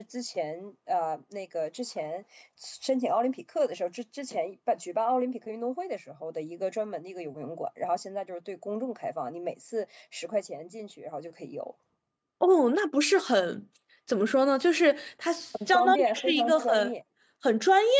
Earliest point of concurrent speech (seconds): 15.5 s

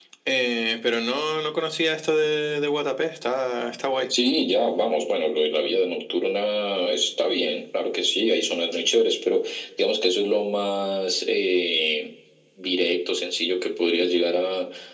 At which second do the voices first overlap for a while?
none

